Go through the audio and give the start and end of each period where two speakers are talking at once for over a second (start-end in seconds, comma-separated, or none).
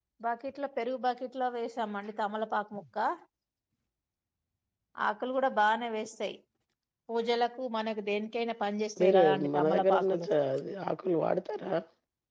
9.0-10.3